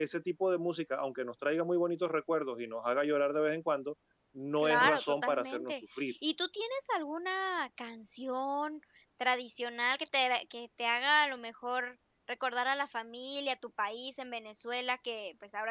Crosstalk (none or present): present